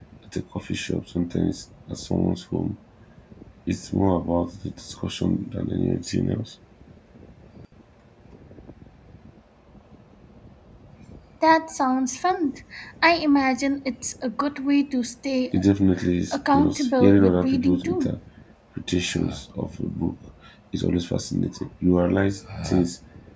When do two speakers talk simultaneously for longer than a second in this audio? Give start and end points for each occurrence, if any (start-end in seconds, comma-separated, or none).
16.3-18.1